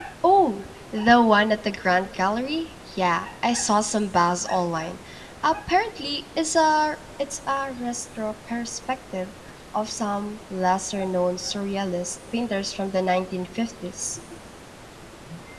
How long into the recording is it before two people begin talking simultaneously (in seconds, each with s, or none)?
none